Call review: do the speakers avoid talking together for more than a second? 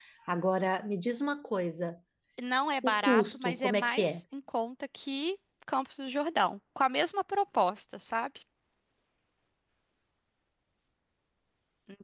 No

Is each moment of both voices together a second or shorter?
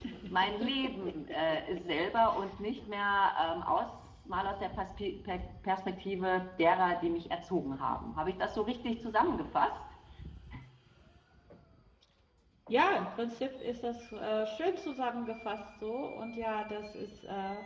Yes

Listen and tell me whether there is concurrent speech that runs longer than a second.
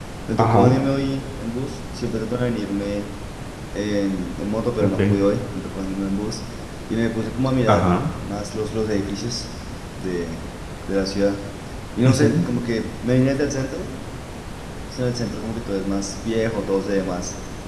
No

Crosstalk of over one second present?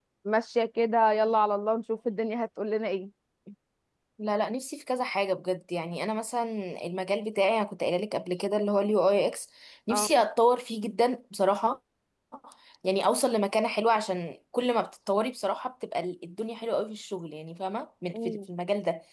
No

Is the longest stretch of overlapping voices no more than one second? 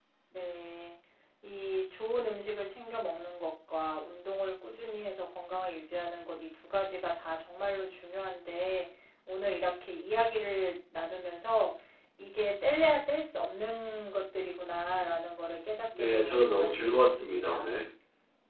No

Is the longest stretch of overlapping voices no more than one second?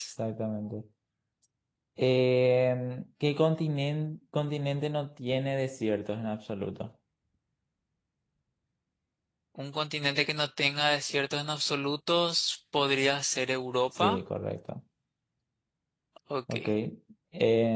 Yes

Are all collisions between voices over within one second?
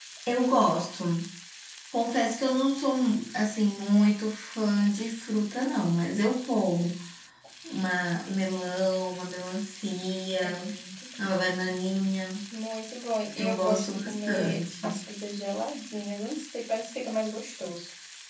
No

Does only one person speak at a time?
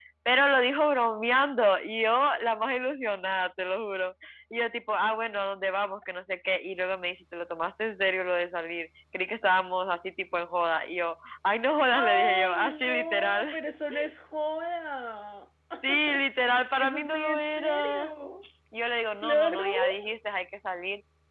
No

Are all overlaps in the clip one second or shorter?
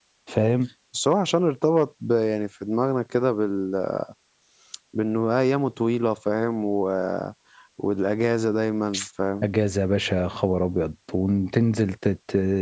Yes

